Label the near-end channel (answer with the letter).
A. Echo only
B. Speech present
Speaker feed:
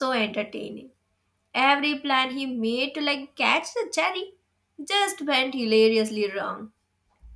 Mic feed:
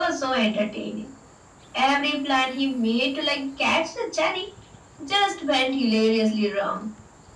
A